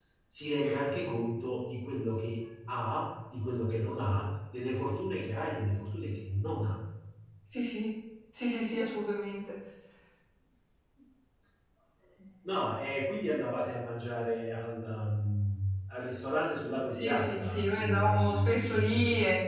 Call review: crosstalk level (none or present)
present